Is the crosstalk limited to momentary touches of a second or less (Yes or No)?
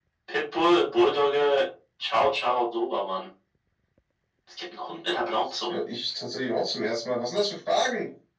Yes